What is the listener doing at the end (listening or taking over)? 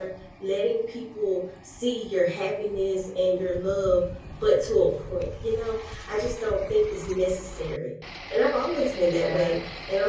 listening